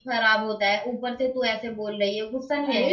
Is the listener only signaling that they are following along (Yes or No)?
No